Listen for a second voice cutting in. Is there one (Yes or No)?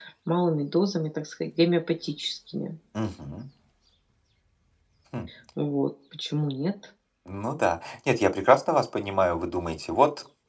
No